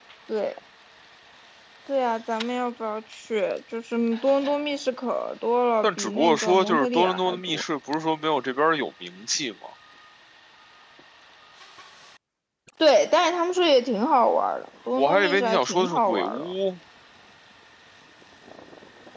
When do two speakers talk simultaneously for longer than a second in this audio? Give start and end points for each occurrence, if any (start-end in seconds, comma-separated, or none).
5.8-7.6, 15.0-16.5